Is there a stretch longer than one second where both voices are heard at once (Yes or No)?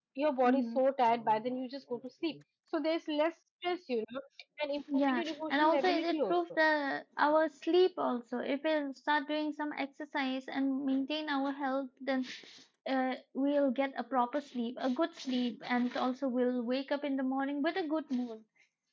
Yes